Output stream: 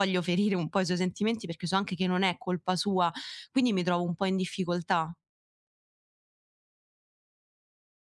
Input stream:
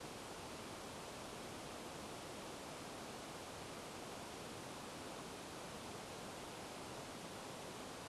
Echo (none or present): none